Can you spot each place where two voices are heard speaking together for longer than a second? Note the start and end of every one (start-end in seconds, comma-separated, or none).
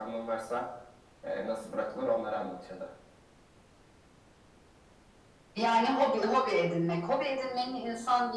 none